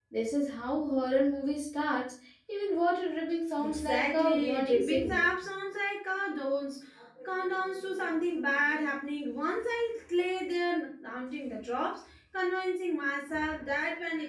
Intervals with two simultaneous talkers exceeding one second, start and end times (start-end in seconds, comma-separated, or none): 3.6-5.3